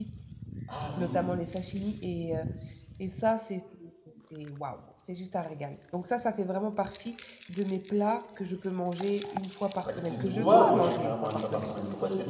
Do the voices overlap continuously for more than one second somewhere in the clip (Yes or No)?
Yes